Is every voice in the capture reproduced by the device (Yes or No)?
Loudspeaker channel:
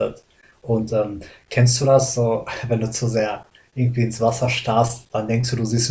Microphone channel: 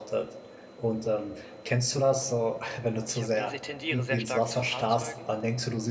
No